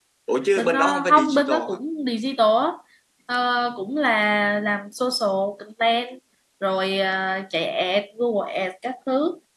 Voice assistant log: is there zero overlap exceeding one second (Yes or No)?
No